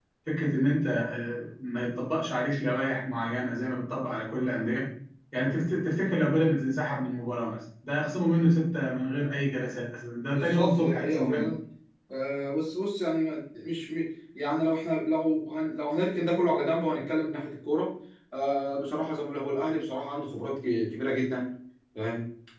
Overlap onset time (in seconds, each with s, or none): 10.3 s